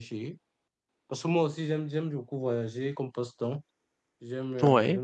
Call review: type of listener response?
listening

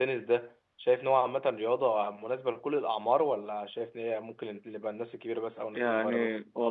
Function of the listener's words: taking over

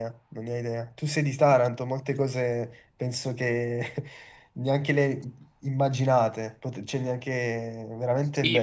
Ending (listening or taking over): taking over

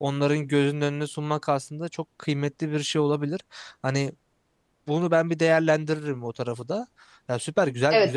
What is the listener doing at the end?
taking over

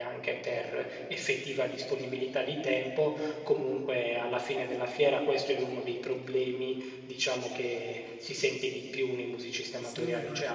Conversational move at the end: listening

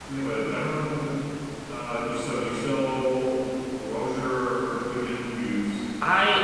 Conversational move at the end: taking over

